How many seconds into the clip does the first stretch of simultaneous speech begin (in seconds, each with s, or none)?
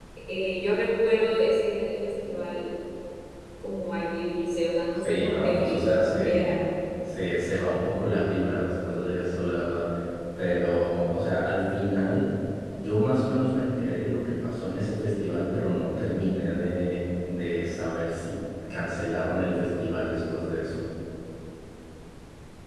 5.0 s